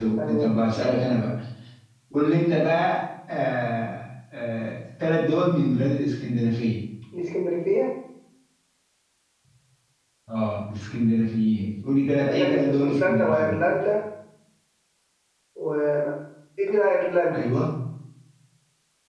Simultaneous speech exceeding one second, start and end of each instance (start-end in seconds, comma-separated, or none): 12.3-13.6